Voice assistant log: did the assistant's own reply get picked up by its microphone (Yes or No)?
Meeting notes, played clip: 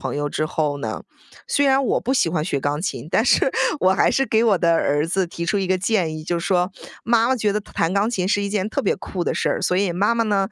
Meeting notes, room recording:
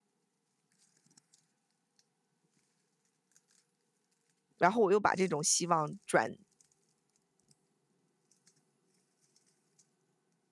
No